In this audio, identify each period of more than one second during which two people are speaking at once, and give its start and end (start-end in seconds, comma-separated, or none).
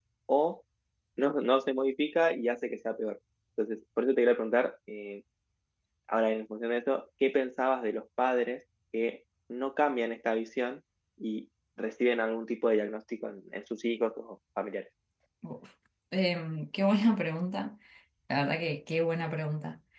none